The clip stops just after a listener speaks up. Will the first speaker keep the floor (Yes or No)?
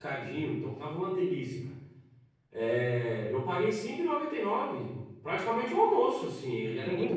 No